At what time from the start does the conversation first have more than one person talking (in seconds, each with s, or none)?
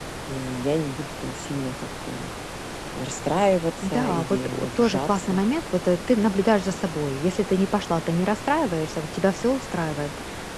3.8 s